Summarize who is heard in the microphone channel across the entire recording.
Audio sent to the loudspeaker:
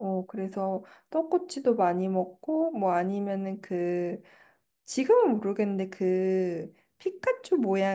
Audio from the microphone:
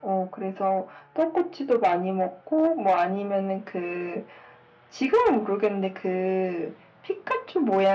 echo only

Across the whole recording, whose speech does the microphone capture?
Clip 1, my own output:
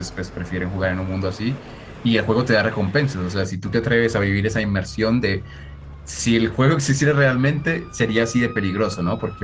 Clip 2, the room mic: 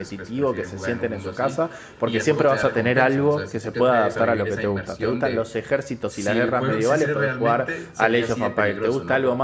both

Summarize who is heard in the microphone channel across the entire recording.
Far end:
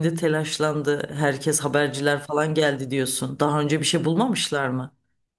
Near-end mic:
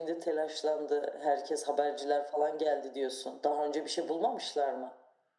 echo only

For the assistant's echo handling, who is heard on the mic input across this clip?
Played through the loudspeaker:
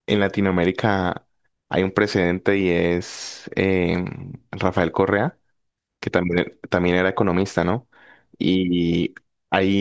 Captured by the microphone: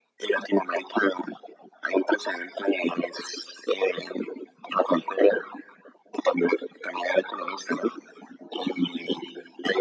echo only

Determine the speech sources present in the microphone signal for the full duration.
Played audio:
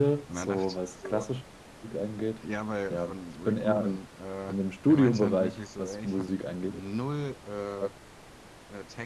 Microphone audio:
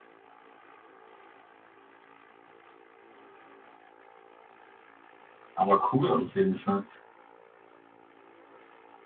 user only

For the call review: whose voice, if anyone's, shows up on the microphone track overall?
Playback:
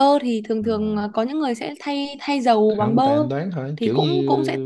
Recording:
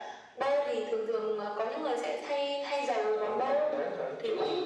echo only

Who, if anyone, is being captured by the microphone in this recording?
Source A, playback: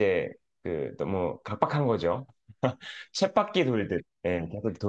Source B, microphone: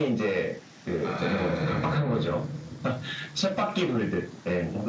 both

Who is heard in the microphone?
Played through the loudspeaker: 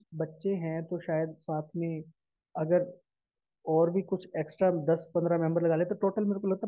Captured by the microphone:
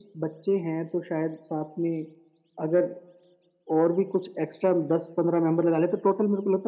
echo only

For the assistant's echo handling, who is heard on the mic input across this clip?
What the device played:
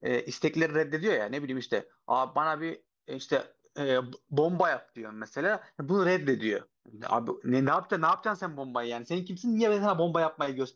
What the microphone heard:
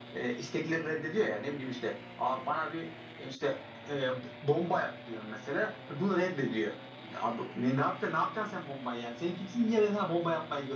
echo only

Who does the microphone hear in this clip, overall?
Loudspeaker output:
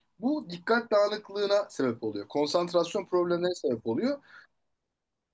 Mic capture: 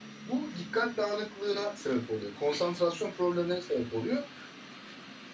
echo only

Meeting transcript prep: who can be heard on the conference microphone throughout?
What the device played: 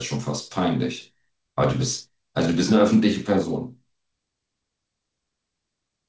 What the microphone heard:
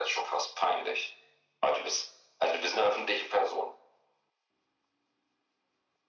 echo only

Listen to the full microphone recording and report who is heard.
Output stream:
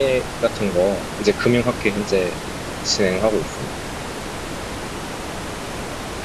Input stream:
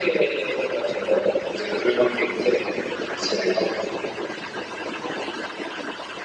echo only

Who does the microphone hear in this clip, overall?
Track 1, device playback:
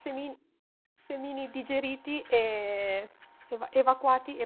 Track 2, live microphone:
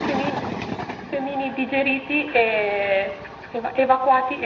echo only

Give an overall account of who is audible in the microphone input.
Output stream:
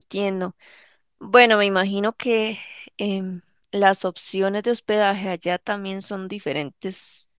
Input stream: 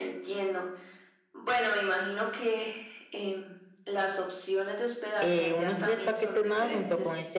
both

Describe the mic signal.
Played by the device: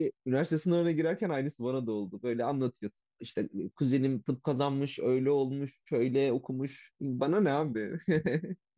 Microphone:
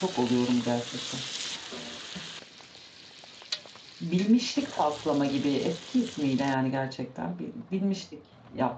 user only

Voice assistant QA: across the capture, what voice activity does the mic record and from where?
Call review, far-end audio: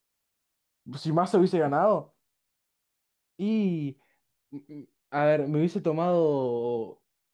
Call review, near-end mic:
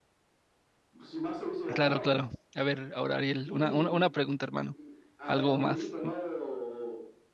both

